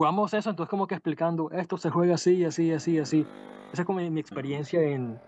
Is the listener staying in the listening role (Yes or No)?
Yes